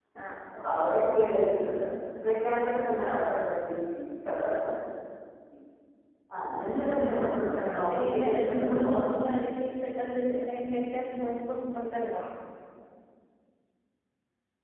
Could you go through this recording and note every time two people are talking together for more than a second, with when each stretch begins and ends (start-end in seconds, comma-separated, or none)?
7.6-9.1